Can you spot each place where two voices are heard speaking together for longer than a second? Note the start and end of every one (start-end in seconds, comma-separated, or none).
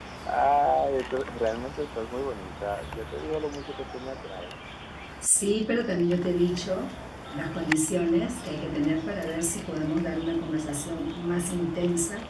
none